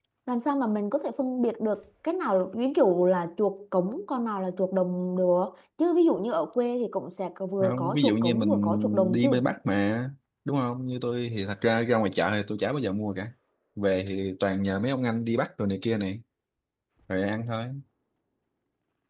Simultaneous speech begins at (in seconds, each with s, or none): 7.6 s